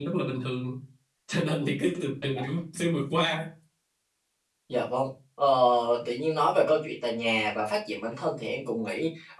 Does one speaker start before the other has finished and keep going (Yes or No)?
No